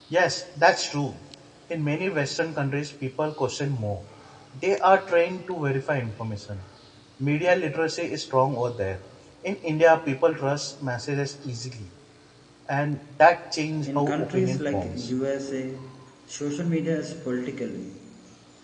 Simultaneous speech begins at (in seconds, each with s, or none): 13.8 s